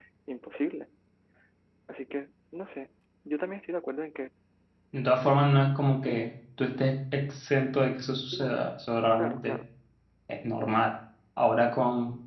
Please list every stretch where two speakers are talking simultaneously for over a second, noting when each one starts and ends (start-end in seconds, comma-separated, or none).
none